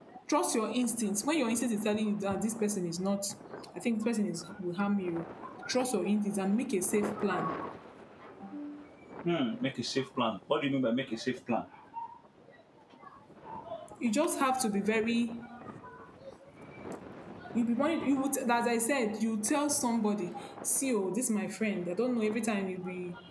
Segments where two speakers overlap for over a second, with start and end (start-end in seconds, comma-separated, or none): none